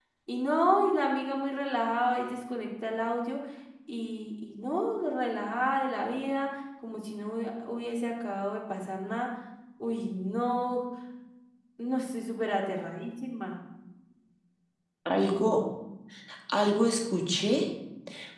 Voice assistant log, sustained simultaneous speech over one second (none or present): none